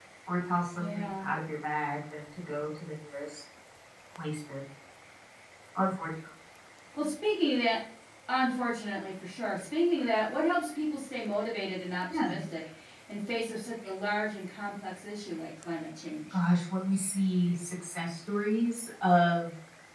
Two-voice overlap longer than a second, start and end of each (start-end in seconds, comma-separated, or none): none